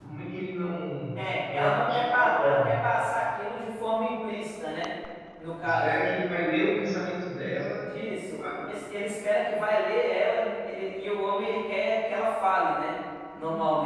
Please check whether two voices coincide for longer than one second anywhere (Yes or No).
Yes